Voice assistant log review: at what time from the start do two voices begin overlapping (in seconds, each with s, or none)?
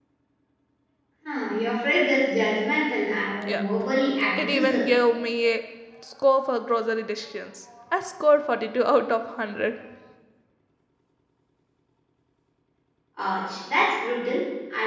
3.4 s